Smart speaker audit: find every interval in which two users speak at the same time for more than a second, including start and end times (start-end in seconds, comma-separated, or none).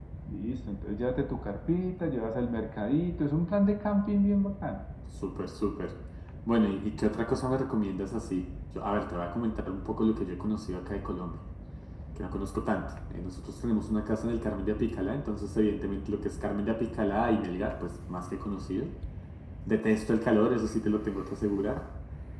none